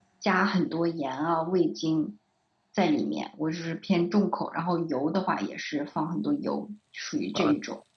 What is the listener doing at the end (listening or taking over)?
taking over